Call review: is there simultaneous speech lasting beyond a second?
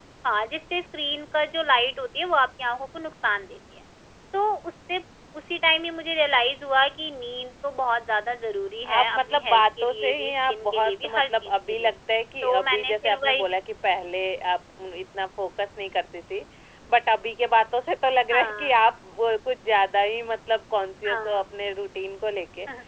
Yes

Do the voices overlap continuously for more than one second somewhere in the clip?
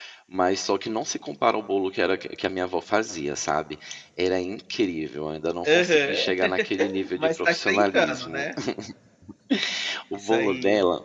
Yes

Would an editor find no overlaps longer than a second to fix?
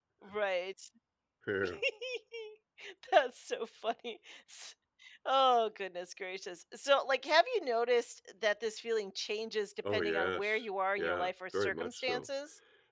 No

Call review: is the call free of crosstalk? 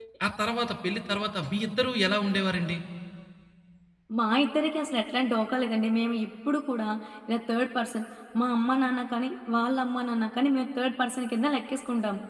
Yes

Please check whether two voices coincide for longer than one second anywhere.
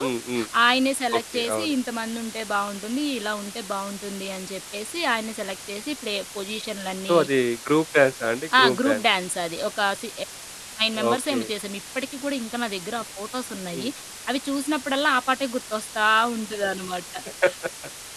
No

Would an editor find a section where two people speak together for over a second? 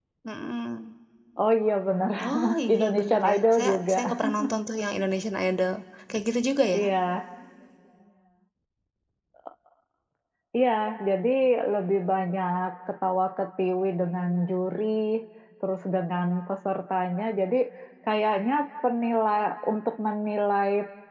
Yes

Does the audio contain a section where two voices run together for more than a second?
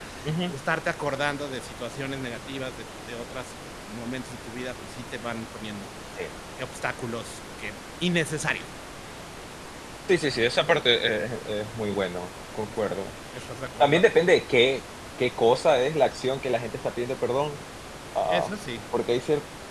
No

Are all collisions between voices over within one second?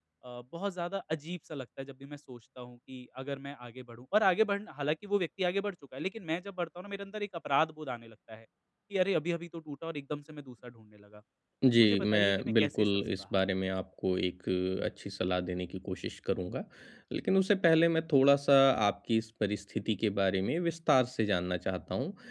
No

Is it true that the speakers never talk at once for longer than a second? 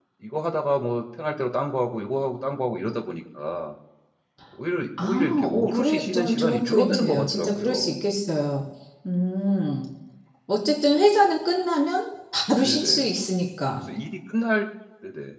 No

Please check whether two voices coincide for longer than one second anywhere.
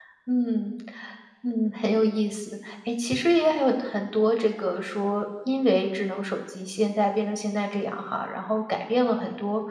No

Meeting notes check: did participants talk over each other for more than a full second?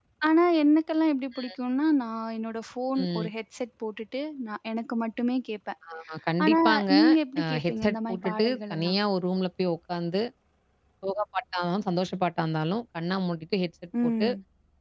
Yes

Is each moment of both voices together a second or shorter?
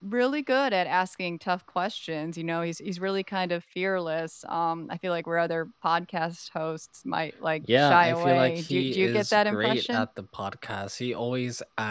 No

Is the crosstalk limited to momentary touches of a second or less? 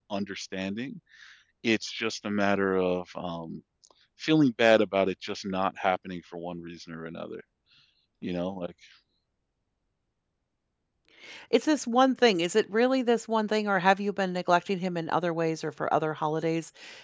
Yes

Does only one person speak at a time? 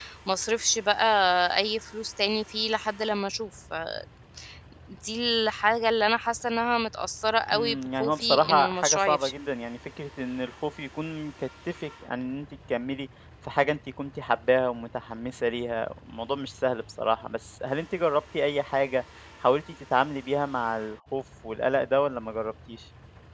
No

